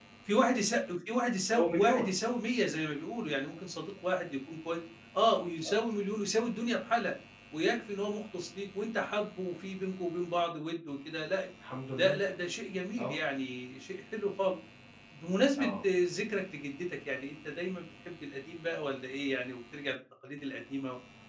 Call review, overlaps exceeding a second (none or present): none